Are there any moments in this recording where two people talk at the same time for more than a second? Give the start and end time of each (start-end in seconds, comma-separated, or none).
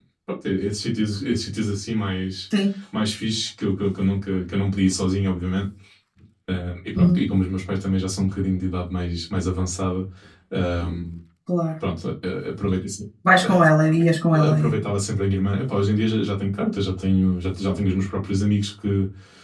none